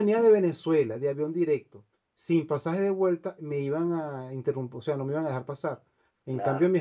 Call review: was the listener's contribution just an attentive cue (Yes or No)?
Yes